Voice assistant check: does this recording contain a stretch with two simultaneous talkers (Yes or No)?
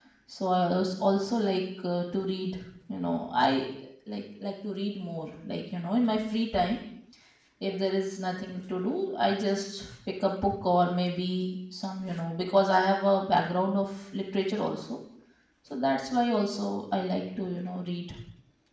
No